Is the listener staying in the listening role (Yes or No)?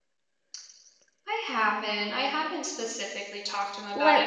Yes